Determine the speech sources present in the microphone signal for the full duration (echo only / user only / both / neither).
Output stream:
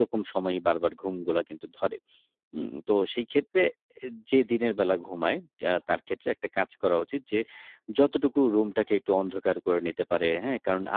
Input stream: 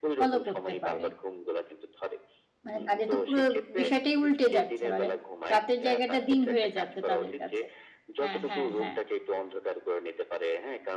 both